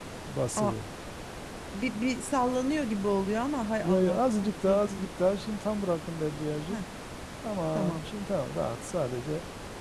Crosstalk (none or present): present